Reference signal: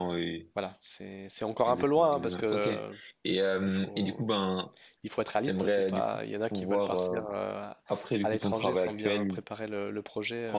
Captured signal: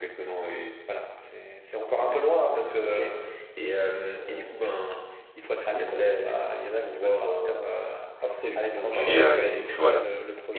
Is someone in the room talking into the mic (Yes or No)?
Yes